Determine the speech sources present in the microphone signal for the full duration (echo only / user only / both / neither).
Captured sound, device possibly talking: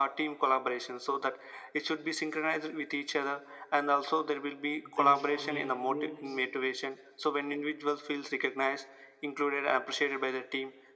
both